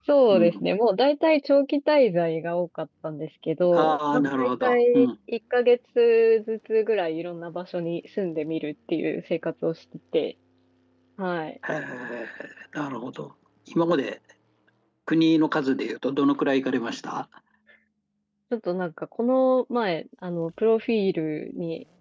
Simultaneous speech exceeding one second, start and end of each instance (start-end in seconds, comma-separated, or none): 3.7-5.1